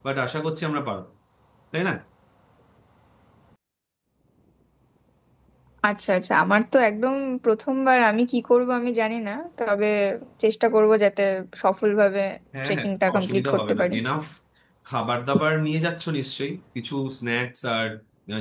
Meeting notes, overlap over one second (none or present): present